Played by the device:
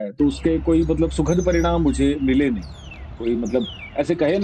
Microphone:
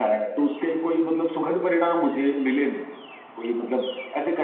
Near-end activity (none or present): none